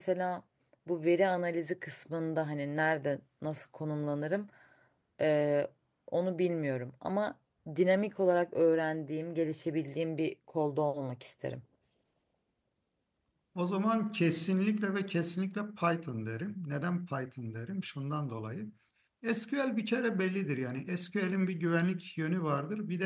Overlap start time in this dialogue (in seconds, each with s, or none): none